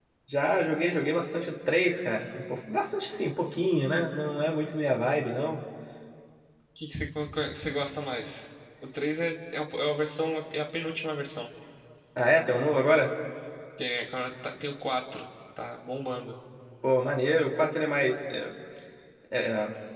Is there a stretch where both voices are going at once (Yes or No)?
No